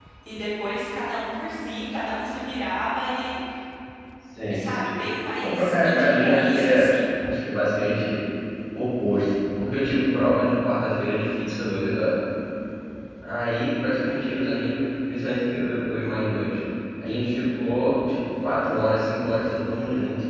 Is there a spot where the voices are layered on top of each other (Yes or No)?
Yes